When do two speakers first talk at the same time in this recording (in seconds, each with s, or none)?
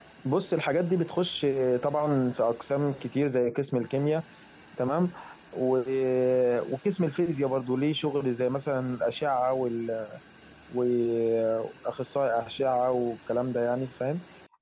none